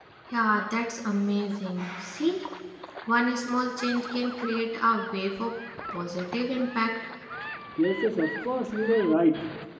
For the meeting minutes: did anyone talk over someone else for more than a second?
No

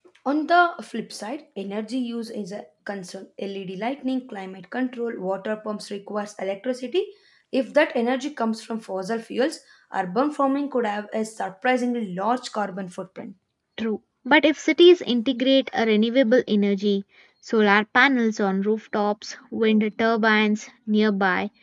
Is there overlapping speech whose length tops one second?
No

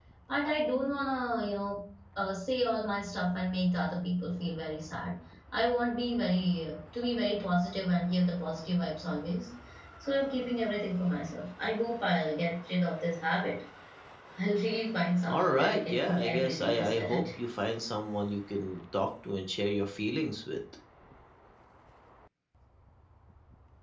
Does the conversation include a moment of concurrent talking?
Yes, from 15.2 s

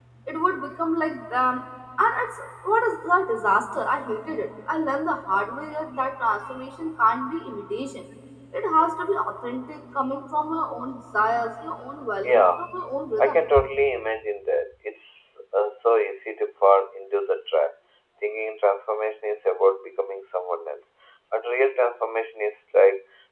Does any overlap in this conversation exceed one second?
No

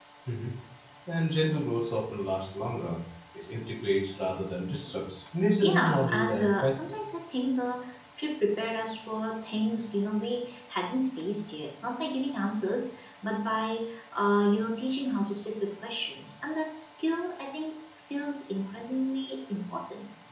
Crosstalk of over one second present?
Yes, from 5.6 s

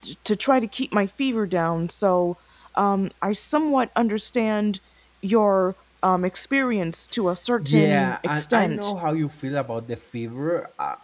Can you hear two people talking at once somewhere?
Yes, from 7.6 s

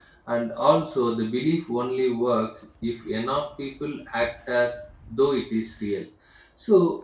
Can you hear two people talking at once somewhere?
No

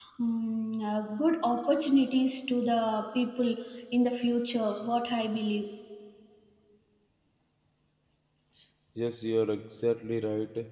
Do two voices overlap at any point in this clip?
No

